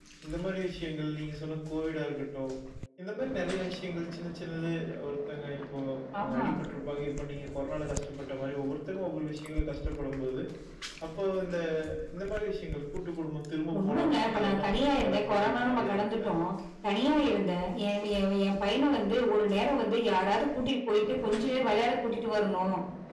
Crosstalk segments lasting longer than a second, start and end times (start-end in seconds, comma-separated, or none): 13.8-16.3